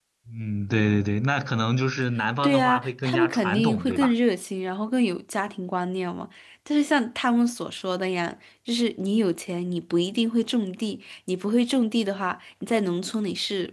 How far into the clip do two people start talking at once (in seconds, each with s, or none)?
2.4 s